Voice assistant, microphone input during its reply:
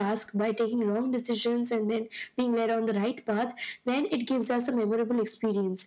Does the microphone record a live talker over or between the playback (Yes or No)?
No